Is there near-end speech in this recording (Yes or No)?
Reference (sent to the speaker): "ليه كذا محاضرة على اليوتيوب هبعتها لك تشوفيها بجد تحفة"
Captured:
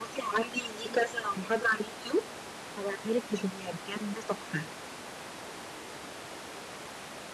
No